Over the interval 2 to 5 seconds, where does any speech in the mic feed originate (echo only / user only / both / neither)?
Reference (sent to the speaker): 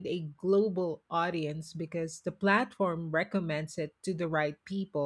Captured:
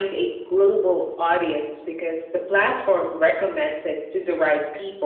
echo only